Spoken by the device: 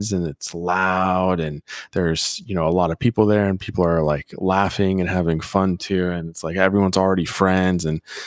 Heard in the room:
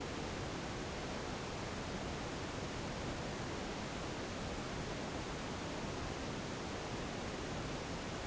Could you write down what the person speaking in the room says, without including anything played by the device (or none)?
none